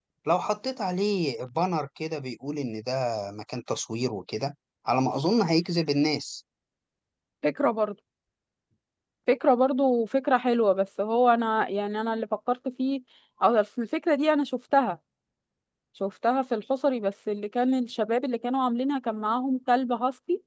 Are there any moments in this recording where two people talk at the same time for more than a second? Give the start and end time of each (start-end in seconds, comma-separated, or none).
none